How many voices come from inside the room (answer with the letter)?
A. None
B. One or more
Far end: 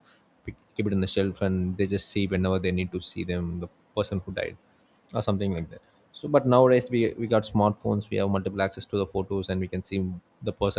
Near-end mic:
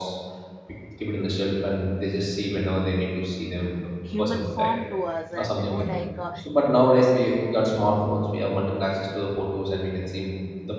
B